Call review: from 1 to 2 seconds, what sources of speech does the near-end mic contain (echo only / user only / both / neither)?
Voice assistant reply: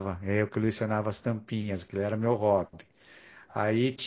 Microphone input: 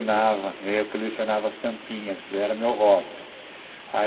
echo only